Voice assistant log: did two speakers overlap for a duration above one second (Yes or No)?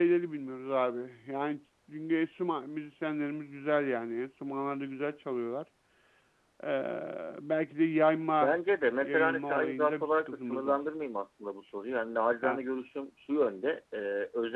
Yes